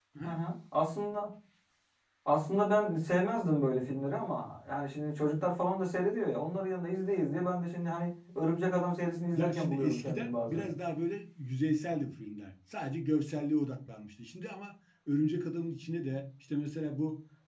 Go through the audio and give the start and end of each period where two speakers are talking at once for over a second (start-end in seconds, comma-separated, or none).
9.3-10.6